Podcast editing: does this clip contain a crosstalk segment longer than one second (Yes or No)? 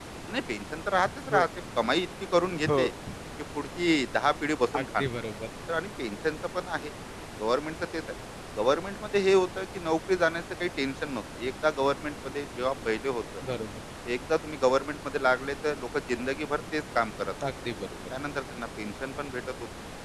No